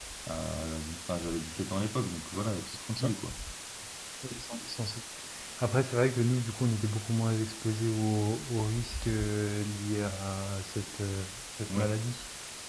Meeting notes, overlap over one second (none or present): none